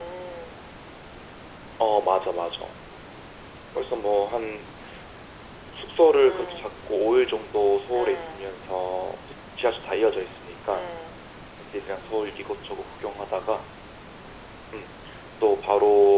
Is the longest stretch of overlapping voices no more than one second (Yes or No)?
Yes